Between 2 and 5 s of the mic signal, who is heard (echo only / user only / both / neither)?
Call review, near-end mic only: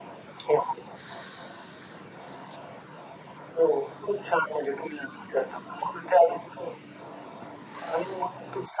echo only